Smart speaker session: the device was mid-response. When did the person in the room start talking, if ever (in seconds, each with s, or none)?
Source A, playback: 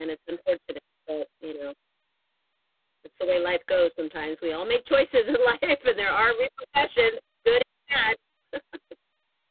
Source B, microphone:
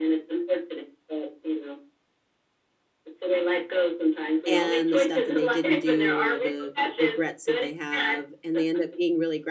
4.5 s